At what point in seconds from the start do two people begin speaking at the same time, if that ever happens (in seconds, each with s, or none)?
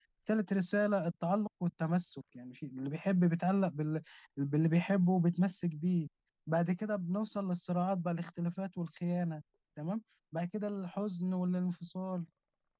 none